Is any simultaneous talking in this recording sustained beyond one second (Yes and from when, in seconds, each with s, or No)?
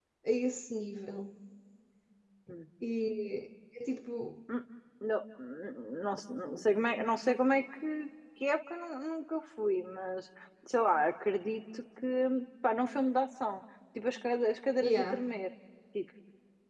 No